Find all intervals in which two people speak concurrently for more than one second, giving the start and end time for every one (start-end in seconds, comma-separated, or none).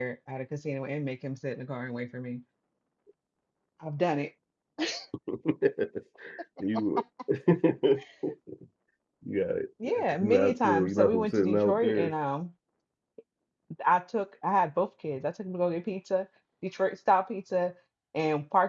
9.8-12.1